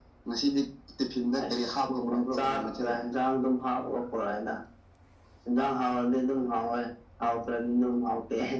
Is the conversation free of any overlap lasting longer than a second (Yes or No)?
No